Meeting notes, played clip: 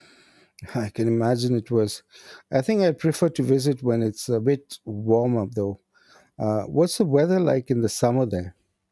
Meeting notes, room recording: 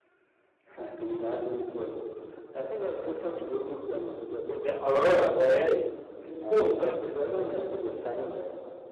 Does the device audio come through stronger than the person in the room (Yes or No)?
No